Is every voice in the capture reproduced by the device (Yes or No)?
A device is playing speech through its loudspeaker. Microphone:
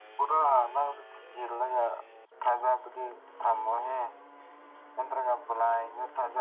Yes